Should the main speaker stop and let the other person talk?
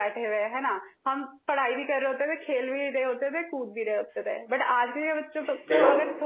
No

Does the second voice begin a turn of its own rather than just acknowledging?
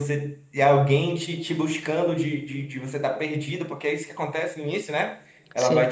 No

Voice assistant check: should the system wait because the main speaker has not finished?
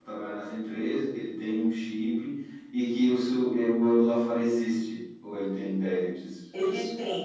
No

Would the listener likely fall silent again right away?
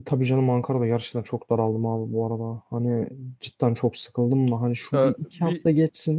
Yes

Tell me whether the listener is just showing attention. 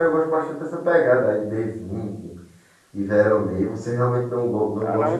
No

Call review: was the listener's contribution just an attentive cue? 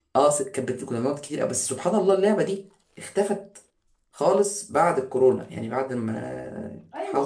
No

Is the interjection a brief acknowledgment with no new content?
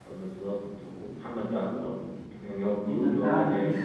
No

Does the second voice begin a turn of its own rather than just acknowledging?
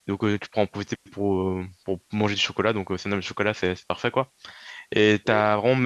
No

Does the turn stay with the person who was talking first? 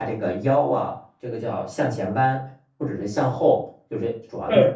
Yes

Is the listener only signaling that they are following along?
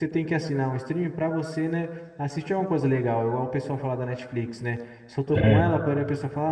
Yes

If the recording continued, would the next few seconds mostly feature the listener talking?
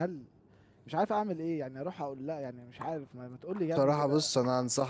Yes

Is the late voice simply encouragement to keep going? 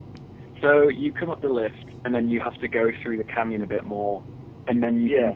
Yes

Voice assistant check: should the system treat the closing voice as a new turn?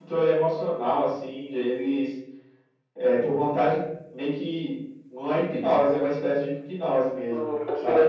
Yes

